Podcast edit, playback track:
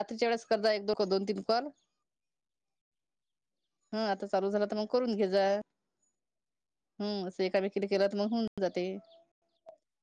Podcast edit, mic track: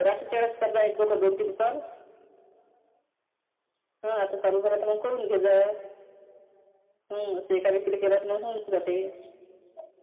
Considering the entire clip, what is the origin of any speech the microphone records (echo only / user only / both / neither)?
echo only